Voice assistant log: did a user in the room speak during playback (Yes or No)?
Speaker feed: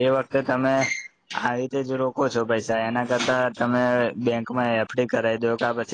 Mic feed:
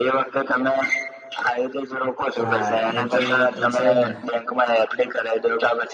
Yes